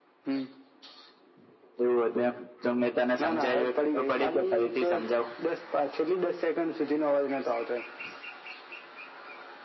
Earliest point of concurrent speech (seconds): 3.2 s

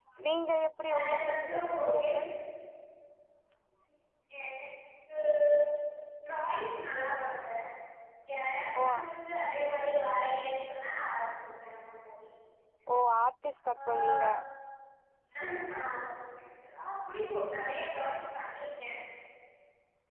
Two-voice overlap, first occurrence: 0.9 s

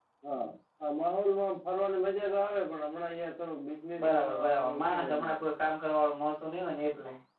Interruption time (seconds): 4.0 s

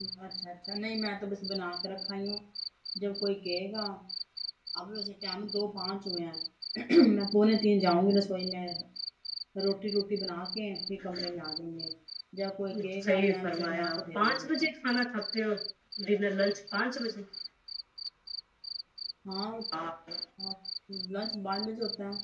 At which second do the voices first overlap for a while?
13.0 s

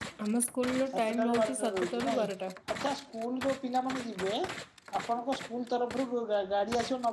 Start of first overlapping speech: 0.9 s

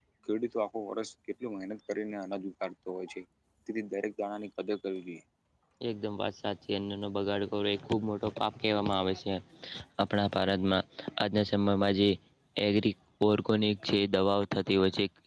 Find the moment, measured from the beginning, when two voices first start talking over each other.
none

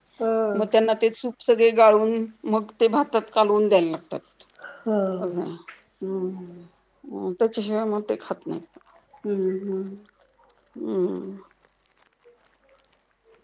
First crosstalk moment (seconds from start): none

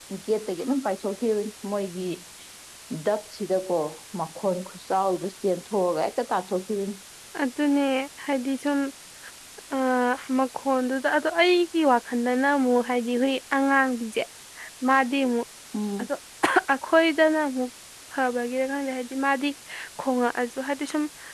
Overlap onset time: none

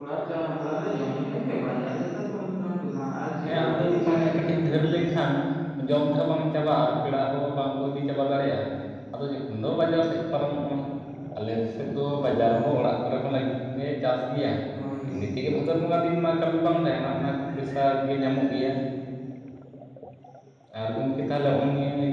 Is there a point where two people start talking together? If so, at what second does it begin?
3.5 s

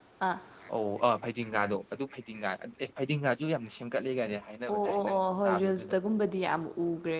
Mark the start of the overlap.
4.7 s

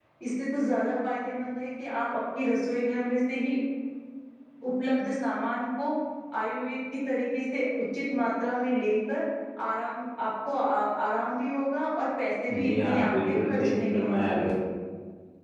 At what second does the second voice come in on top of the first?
12.5 s

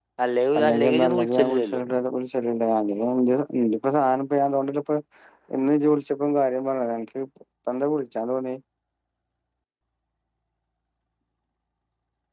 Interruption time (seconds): 0.6 s

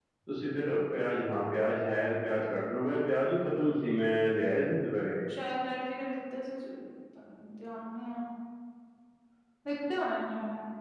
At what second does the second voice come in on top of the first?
none

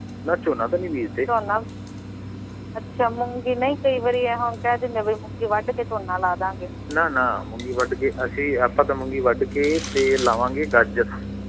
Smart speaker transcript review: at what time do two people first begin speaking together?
none

